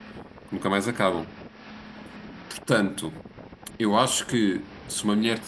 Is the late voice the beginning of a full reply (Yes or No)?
Yes